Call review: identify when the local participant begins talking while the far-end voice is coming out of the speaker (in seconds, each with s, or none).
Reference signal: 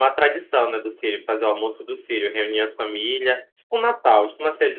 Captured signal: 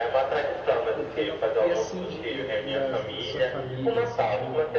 0.9 s